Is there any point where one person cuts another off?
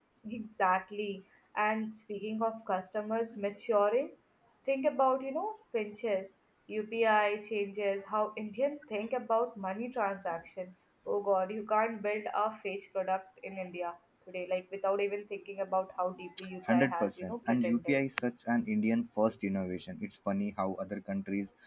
Yes, from 16.2 s

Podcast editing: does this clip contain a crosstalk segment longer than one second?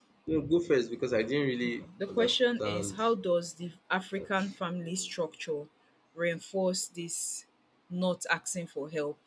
Yes, from 1.6 s

